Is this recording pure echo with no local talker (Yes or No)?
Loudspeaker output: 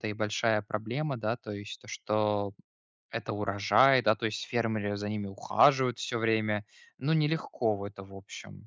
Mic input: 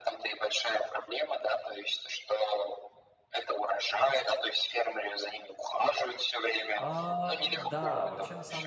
No